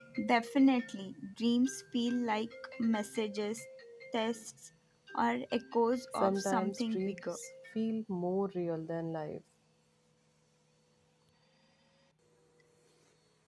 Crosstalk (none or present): present